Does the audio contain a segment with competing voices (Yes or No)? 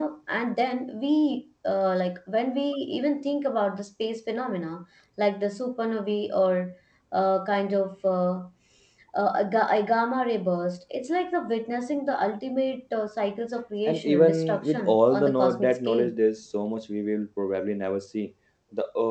Yes